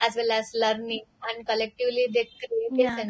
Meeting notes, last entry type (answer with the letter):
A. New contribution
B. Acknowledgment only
A